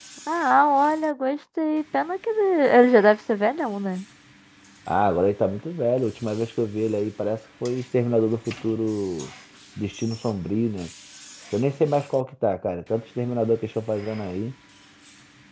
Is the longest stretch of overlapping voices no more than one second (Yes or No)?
Yes